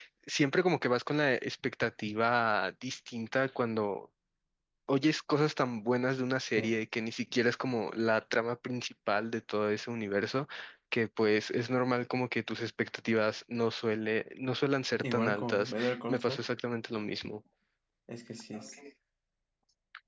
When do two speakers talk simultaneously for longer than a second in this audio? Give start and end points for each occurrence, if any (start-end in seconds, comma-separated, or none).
15.0-16.4